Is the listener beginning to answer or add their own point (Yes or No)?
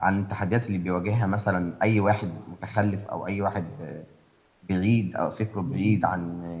No